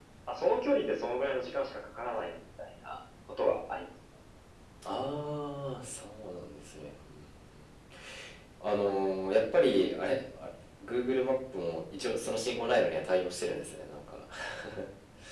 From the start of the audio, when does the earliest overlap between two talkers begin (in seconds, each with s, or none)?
none